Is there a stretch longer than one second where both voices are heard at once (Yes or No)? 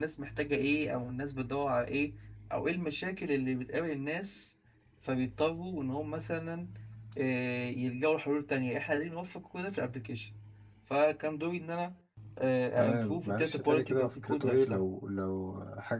Yes